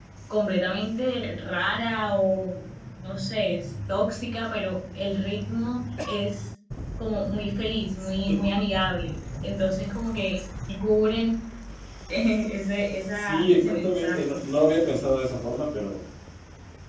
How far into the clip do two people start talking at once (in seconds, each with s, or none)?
13.1 s